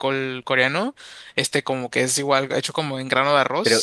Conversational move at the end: taking over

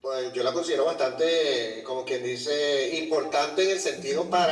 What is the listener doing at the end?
listening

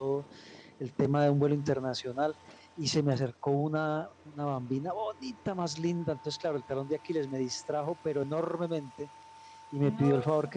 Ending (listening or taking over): listening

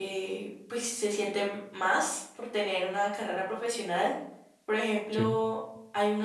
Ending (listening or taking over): listening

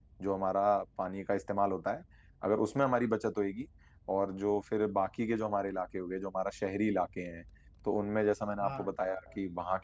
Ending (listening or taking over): listening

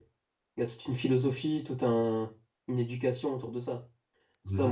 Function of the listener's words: taking over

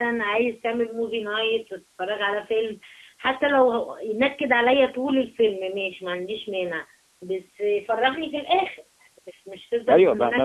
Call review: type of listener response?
taking over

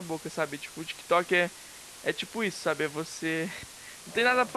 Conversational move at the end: listening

